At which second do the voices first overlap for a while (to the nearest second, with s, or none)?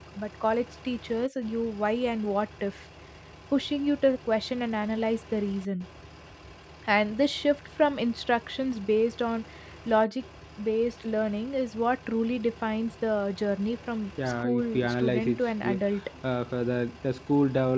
14 s